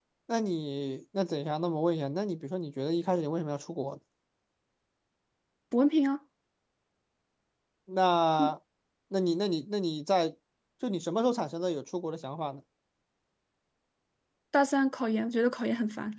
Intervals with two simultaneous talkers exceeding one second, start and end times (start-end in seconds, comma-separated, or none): none